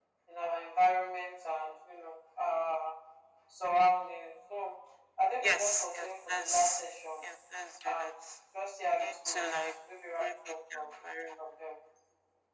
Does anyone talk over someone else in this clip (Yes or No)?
Yes